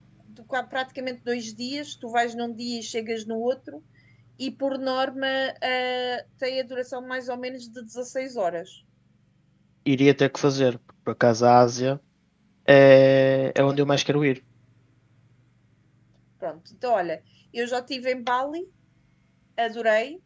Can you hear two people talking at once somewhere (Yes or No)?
No